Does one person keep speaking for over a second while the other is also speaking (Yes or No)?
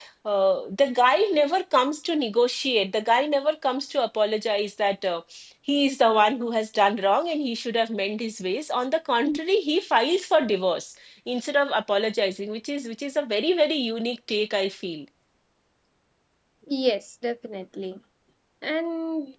No